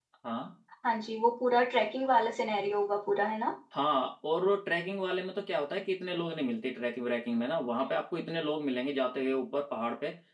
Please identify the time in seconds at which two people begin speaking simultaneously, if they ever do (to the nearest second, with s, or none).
none